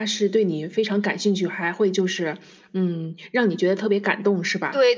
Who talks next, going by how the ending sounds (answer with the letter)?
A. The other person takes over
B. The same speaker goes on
A